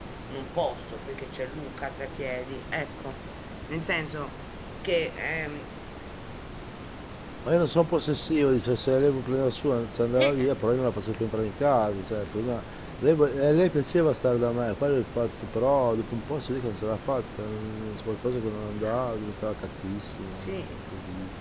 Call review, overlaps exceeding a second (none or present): none